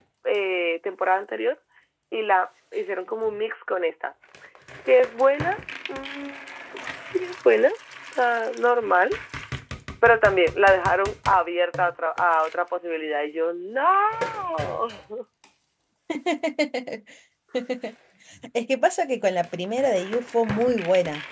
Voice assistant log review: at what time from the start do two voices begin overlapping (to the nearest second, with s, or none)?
none